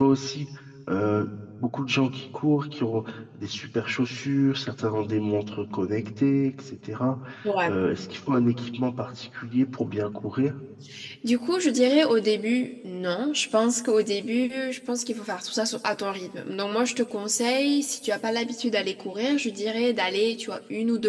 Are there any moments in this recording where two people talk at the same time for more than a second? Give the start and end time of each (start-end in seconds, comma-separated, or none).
none